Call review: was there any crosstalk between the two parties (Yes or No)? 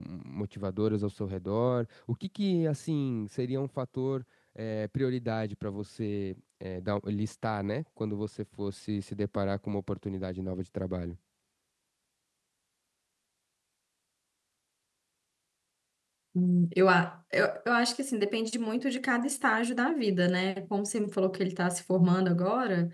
No